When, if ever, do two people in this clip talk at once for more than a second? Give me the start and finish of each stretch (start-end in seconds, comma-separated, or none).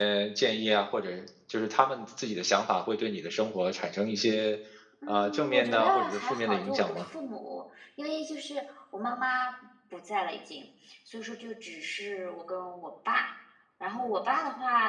5.1-7.0